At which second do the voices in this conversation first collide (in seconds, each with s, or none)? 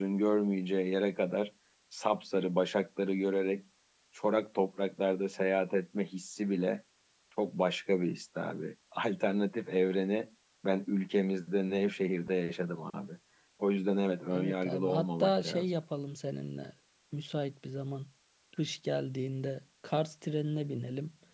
14.3 s